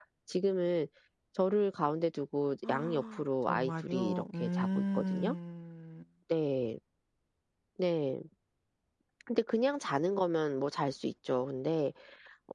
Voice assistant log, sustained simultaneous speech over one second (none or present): present